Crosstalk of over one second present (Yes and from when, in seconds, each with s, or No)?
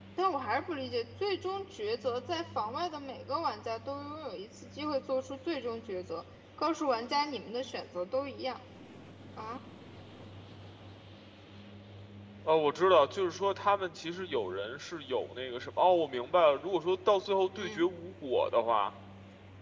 No